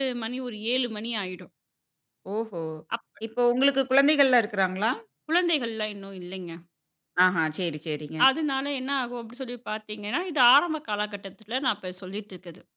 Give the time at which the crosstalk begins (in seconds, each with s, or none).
none